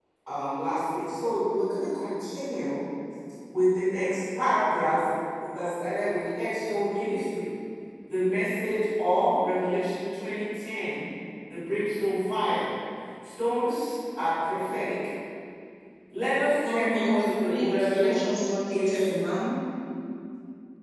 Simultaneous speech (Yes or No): Yes